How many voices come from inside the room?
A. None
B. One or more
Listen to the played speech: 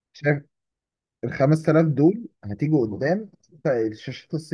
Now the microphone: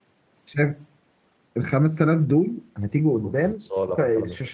B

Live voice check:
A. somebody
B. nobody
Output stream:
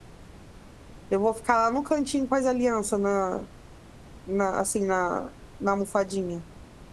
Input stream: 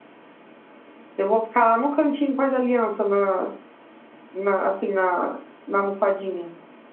B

